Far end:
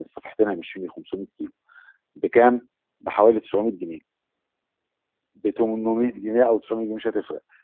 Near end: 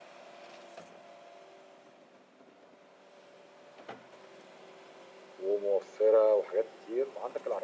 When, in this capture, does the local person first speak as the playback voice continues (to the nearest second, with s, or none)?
5 s